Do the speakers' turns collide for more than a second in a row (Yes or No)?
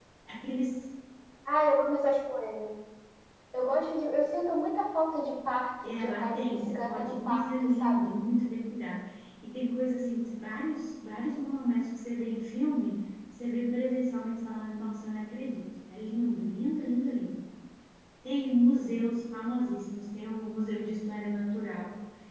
Yes